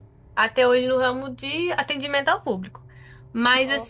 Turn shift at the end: No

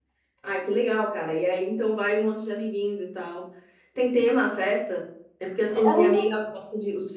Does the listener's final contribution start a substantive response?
No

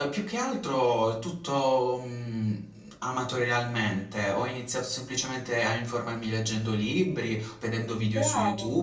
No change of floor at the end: Yes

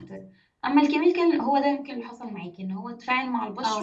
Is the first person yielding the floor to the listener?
No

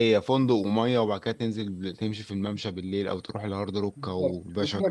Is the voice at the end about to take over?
Yes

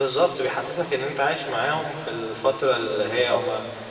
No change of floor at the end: Yes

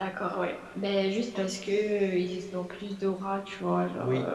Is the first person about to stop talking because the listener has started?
Yes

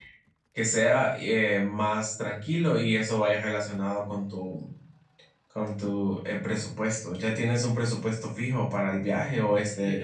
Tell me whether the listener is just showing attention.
No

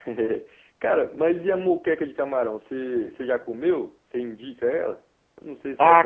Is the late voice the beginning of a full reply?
Yes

